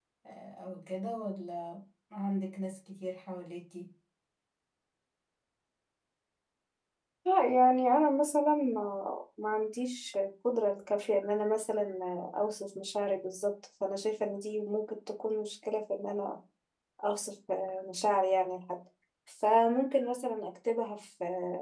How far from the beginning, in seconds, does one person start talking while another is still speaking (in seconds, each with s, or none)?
none